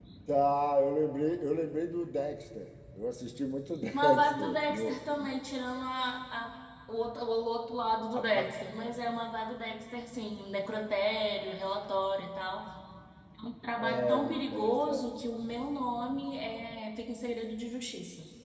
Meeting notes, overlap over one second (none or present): present